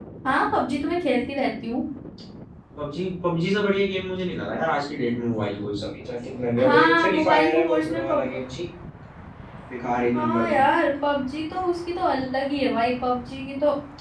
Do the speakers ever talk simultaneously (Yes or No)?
Yes